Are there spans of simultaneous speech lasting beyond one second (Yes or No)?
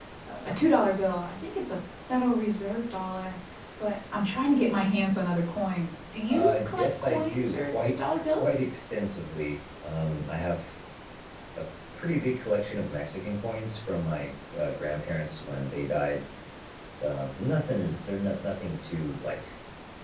Yes